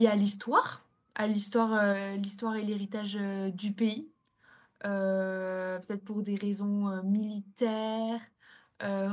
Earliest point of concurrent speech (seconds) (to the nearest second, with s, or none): none